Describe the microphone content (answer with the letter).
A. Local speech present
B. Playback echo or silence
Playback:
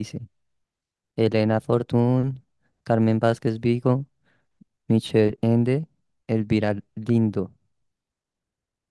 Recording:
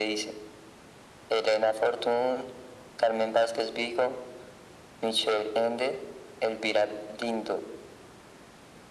B